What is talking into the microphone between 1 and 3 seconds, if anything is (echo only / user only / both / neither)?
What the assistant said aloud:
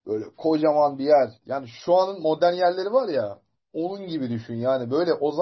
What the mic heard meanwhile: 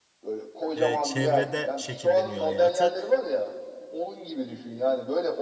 both